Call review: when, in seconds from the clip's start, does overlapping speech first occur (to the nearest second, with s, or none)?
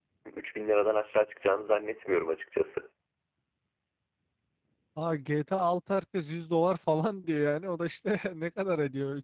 none